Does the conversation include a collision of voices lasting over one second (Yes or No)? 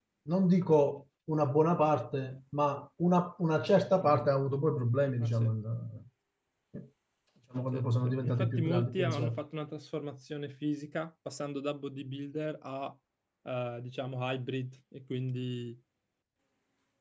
Yes